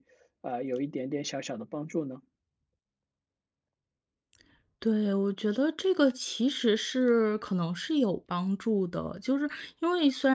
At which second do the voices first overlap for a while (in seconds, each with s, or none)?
none